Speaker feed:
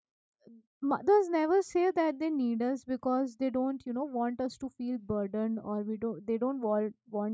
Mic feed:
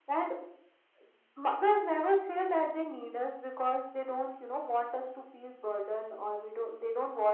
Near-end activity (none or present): none